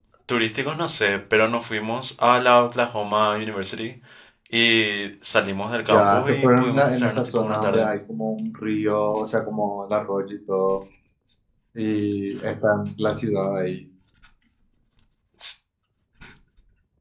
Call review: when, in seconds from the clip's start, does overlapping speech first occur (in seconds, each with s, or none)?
5.8 s